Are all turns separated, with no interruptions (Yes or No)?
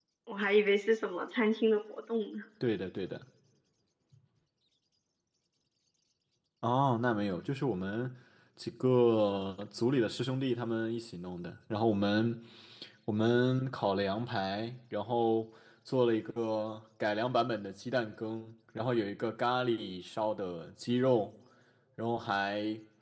Yes